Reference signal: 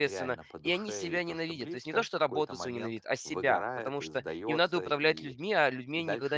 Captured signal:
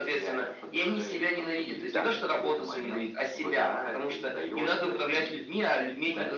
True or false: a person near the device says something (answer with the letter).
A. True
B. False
A